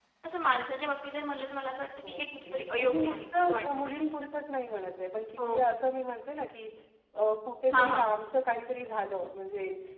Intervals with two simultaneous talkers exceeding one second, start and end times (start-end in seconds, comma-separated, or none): 2.0-4.0